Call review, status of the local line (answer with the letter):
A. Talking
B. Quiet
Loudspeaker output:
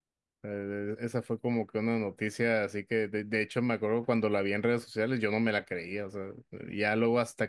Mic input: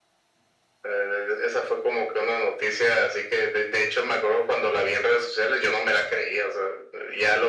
B